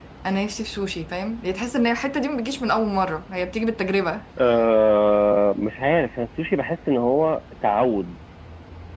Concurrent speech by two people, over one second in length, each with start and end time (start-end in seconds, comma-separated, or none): none